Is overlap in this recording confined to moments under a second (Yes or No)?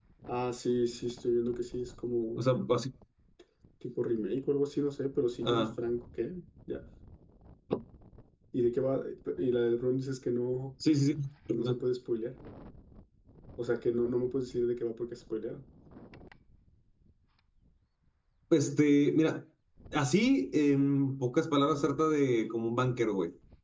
Yes